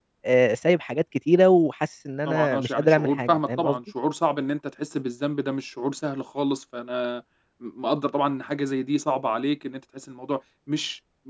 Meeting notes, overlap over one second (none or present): present